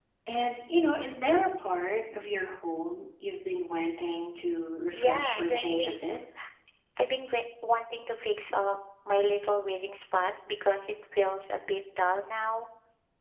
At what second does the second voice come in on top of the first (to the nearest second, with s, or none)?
5 s